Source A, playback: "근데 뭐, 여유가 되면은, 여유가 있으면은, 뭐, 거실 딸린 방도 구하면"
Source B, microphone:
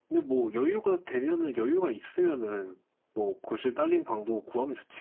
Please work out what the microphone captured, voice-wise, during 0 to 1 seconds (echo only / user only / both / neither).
echo only